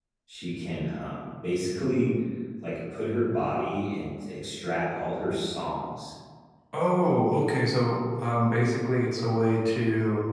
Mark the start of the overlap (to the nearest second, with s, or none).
none